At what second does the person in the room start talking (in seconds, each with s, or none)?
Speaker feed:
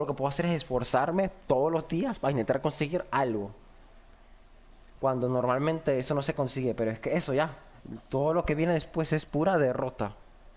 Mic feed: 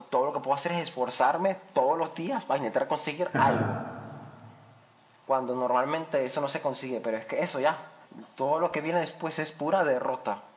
3.3 s